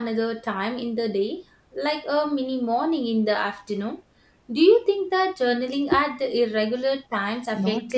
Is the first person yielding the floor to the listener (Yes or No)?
Yes